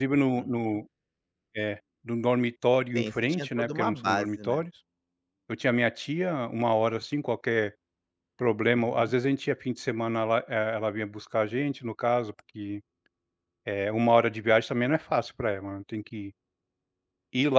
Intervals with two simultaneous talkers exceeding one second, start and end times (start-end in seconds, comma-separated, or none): 3.0-4.6